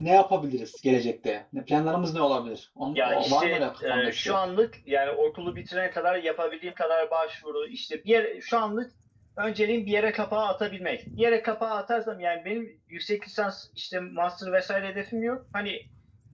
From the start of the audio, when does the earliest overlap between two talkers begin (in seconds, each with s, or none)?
2.9 s